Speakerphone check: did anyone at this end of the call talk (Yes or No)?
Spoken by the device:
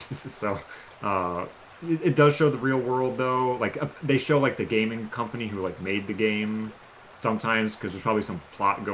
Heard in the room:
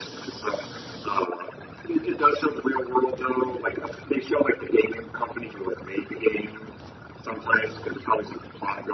No